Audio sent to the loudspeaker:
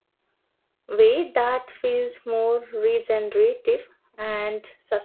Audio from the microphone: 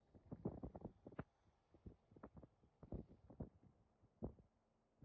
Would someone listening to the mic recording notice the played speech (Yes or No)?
No